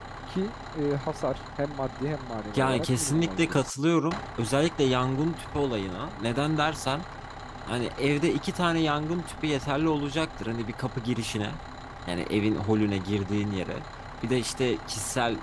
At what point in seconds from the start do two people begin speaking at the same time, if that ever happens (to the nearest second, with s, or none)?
3 s